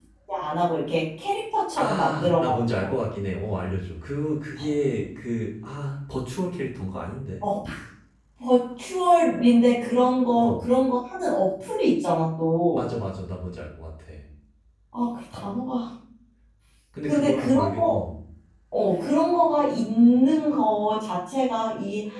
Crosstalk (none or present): present